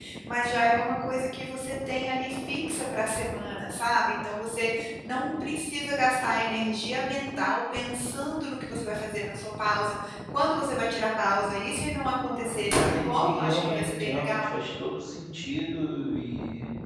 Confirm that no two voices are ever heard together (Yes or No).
No